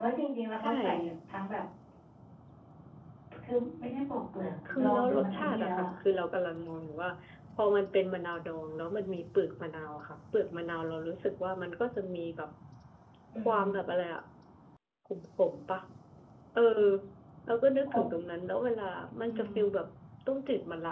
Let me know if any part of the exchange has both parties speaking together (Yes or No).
Yes